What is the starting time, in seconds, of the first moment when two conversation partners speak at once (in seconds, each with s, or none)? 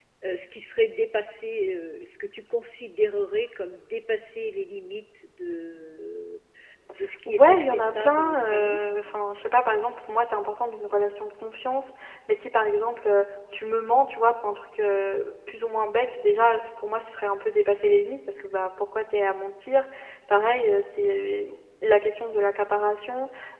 7.3 s